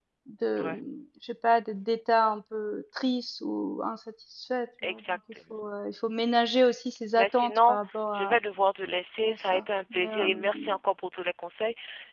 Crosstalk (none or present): present